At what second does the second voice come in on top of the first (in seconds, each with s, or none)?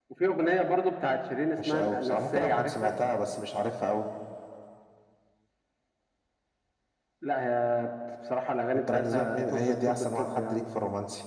1.6 s